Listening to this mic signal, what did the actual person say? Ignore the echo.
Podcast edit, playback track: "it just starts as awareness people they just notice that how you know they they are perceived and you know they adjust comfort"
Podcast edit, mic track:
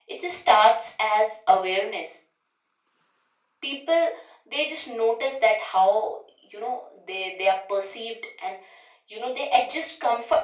none

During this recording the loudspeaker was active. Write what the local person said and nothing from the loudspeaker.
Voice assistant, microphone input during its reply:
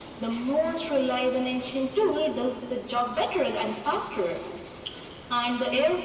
none

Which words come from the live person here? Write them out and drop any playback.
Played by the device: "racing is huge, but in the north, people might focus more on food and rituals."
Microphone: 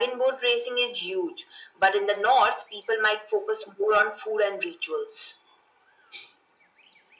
none

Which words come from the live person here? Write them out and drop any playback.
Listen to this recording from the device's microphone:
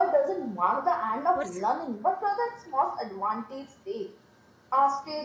Pers-

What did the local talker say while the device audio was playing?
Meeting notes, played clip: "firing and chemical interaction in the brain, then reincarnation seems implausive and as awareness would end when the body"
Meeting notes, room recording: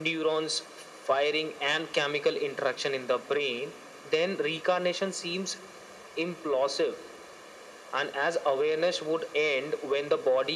none

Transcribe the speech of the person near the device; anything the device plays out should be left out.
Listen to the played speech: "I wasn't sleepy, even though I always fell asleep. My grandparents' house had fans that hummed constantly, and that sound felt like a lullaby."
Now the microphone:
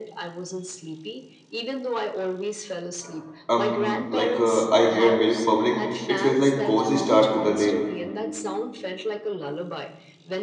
um like uh, I hear milk bubbling, it feels like cozy start to the day.

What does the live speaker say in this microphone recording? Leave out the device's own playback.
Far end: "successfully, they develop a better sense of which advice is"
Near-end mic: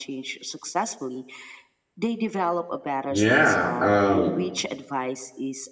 Yeah. Um,

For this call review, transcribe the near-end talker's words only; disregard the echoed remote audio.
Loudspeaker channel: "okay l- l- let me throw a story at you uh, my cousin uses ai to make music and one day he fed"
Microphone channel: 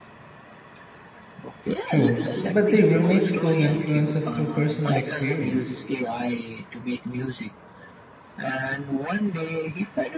True, but they remix those influences through personal experience.

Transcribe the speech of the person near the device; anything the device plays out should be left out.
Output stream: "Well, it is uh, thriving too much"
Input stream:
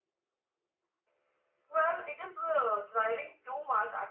none

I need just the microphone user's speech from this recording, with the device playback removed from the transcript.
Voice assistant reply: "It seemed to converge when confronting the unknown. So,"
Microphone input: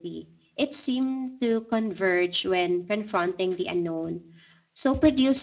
none

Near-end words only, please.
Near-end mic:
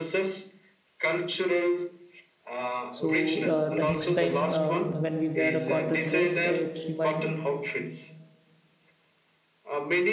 So uh, the next time um, when we wear a cotton dress, it remind

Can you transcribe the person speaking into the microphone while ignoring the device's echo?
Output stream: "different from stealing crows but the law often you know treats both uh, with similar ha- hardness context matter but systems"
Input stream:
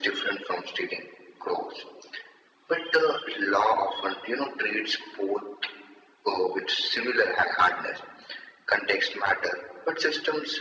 none

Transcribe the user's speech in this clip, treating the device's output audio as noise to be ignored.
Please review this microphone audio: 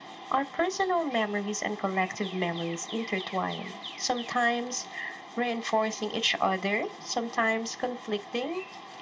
none

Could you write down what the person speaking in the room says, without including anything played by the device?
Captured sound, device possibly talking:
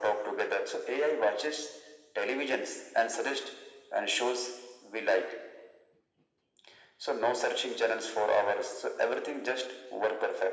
none

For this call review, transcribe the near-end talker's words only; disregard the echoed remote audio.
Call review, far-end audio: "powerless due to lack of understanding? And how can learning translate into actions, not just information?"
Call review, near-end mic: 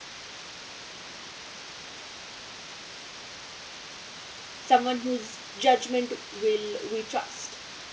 someone whose judgment will we trust?

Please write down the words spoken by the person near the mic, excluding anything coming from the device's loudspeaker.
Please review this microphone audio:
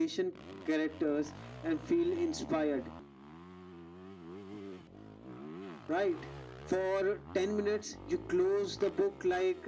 none

